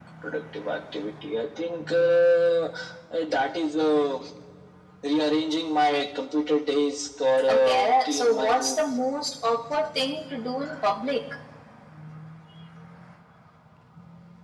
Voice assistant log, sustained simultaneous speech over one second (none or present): present